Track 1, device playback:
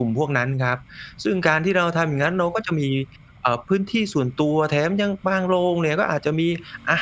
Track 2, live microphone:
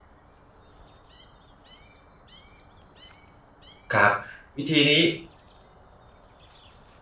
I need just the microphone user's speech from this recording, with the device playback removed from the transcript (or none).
ครับวิธีนี้